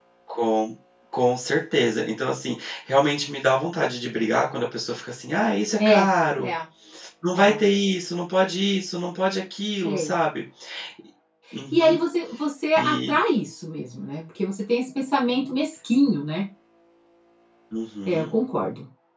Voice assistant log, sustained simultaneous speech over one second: none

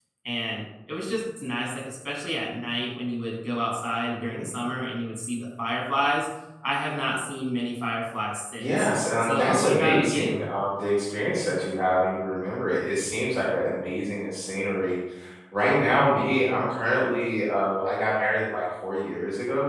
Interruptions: present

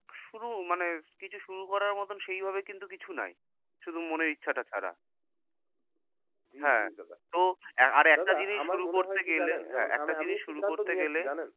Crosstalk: present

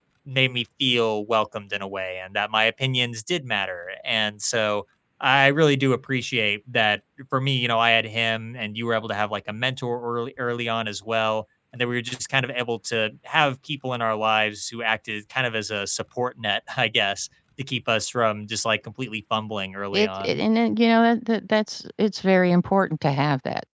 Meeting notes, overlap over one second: none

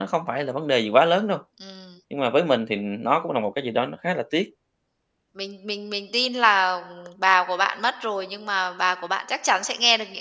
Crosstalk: none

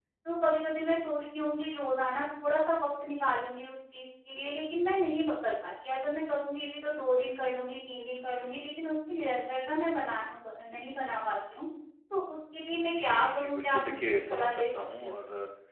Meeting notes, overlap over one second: present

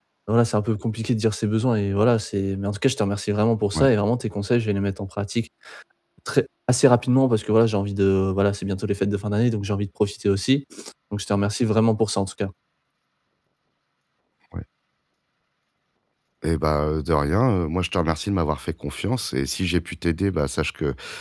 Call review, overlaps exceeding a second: none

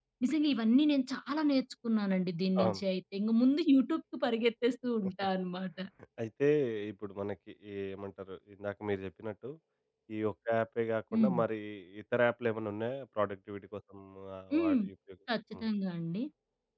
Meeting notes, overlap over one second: none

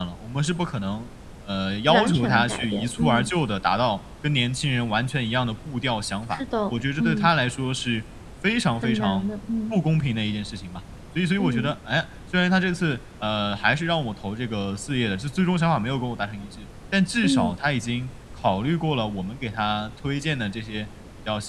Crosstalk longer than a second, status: present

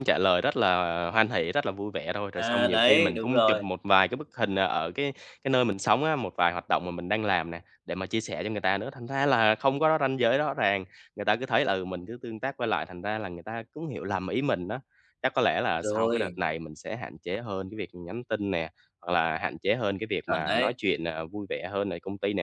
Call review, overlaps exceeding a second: present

